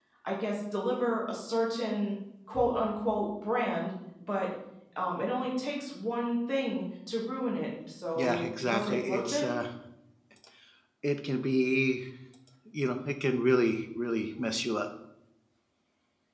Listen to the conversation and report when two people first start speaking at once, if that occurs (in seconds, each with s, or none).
8.2 s